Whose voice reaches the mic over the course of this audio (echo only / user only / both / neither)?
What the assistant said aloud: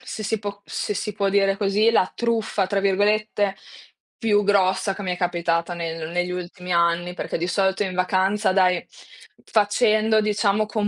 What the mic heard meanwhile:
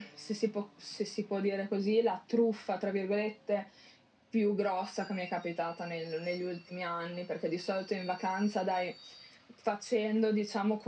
echo only